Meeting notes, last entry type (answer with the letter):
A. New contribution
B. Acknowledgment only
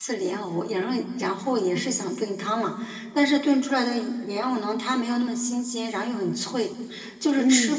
B